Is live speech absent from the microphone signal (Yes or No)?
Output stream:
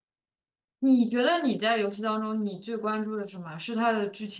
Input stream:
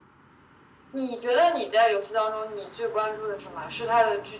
Yes